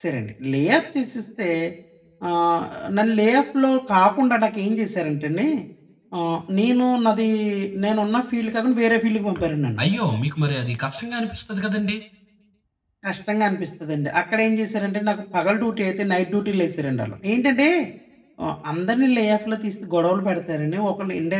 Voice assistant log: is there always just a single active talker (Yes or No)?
Yes